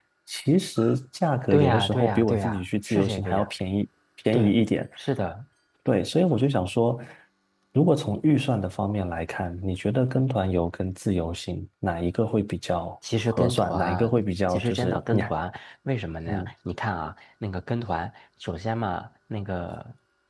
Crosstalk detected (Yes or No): Yes